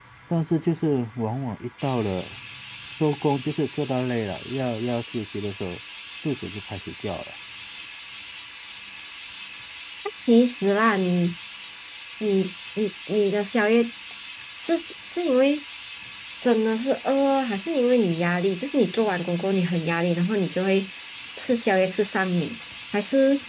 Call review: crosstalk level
none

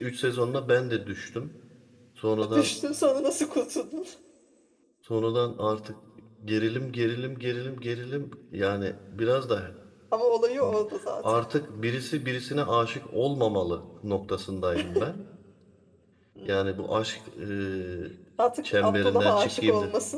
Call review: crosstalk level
present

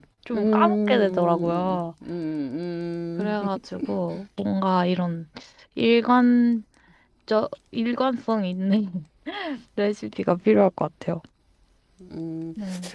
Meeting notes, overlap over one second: present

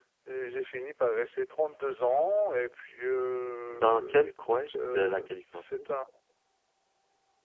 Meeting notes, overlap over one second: present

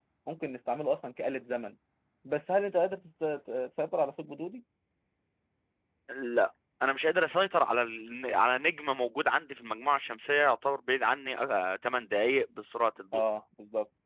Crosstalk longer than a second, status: none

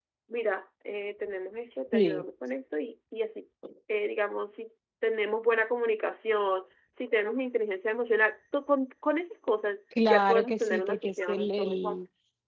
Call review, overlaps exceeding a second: present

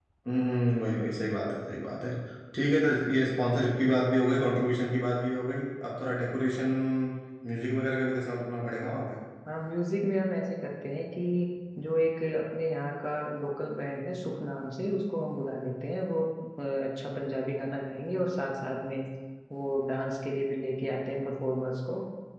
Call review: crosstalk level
none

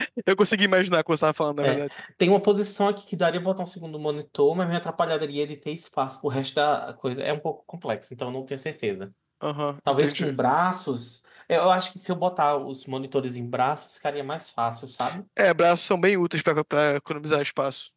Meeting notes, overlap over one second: none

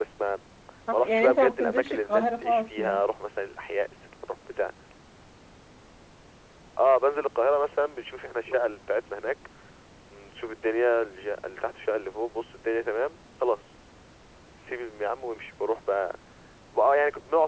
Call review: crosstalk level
present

